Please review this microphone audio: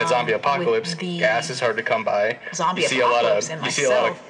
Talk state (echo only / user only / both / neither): echo only